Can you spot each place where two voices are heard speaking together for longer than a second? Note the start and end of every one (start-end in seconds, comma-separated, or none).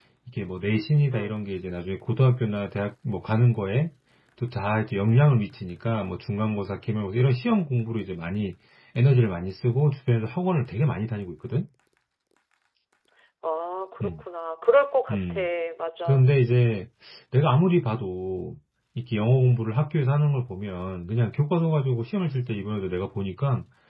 none